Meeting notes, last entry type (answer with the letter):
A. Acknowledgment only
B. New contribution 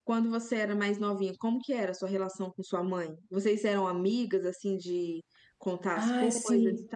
B